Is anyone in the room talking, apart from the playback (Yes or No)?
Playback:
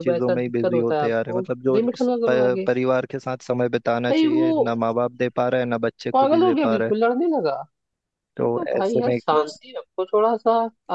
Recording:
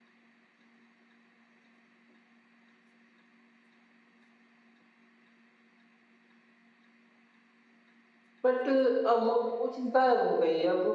Yes